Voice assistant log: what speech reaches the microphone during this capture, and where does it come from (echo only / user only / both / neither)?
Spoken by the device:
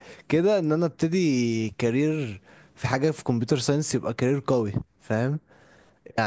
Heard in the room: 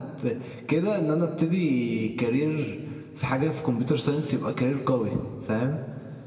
echo only